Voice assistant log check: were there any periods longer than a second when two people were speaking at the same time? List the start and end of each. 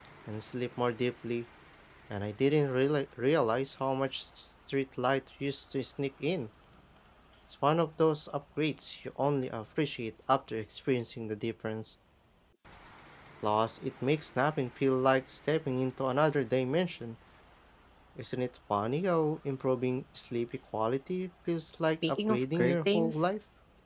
21.8-23.2

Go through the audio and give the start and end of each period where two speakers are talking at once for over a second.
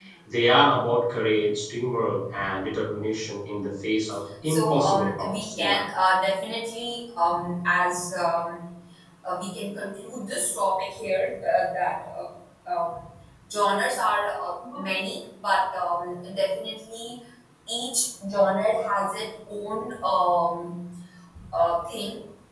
4.4-5.8

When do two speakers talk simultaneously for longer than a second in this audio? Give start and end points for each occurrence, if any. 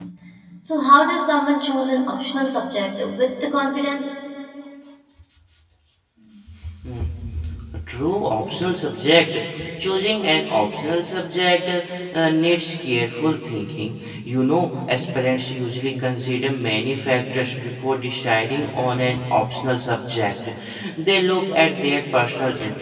none

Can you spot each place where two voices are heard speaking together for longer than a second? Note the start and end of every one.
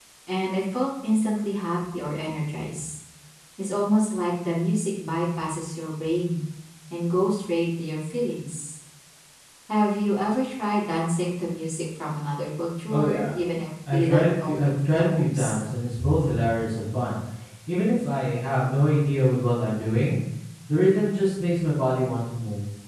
13.9-15.6

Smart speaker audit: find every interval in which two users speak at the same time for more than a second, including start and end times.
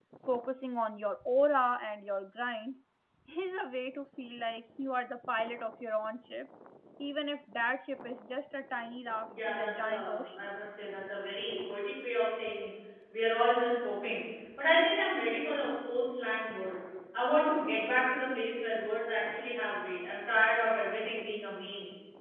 9.3-10.5

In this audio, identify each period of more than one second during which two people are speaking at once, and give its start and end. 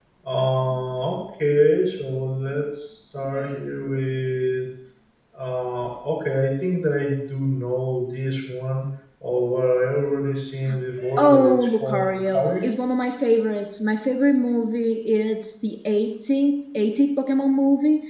11.2-12.7

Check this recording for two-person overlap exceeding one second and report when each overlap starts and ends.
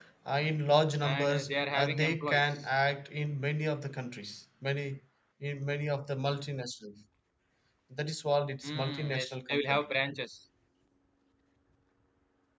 1.0-2.7, 8.6-9.8

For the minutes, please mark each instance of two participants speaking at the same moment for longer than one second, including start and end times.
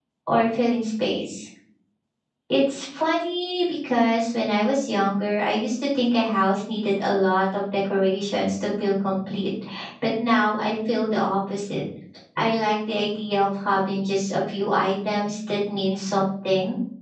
none

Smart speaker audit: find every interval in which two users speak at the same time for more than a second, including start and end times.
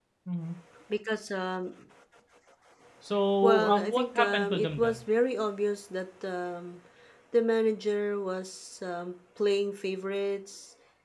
3.4-5.0

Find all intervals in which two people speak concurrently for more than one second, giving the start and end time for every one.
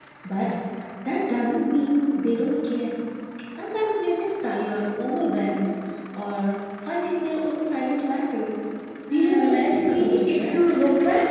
9.1-10.6

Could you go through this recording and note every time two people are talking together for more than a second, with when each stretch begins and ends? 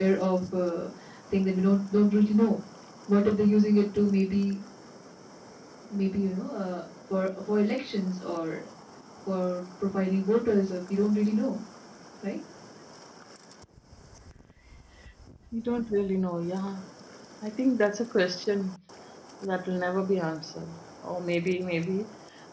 none

